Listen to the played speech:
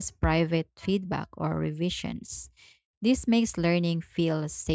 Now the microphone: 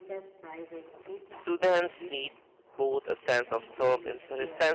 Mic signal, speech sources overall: both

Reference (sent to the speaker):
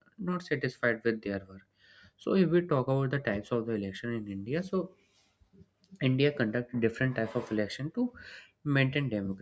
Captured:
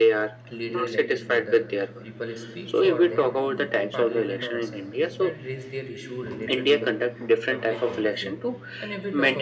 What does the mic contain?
both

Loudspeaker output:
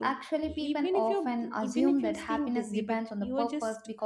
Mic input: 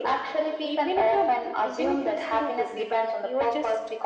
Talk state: echo only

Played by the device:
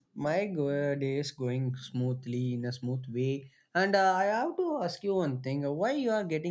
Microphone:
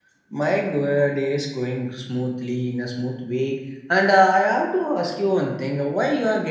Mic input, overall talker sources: echo only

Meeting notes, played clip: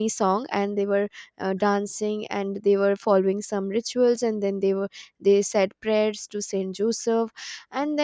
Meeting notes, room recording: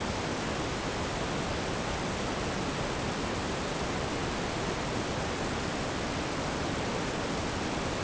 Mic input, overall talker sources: neither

